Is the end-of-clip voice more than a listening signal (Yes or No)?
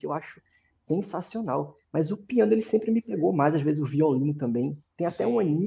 No